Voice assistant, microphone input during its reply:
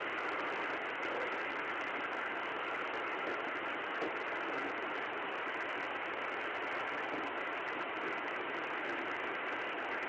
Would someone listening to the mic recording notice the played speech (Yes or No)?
No